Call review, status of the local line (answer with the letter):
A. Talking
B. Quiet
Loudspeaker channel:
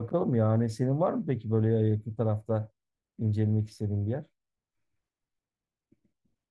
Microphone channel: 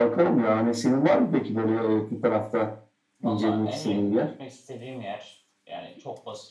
A